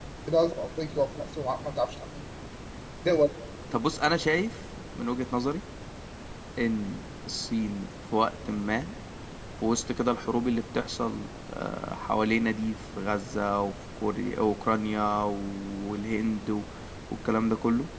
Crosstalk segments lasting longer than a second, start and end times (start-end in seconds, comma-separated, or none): none